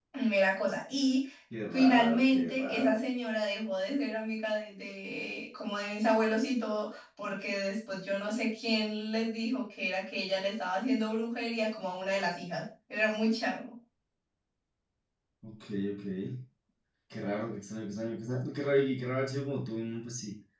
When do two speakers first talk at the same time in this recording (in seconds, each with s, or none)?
1.7 s